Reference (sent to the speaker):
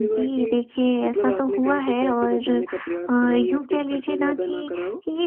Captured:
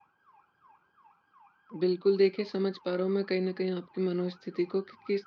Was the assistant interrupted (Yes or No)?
Yes